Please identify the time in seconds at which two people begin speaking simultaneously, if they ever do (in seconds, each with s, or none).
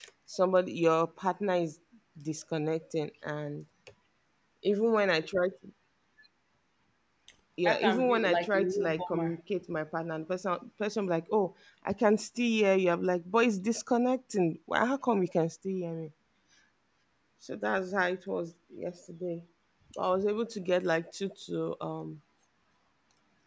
7.6 s